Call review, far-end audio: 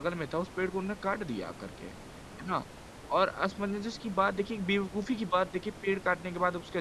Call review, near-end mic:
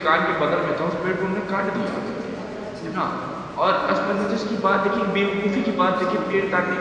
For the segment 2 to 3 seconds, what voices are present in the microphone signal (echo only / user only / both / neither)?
both